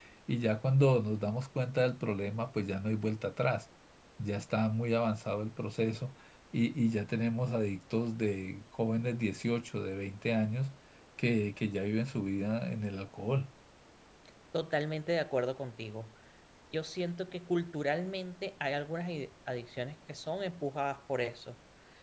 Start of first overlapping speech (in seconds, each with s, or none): none